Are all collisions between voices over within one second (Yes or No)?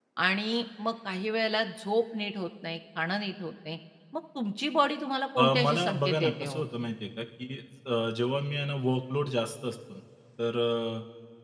No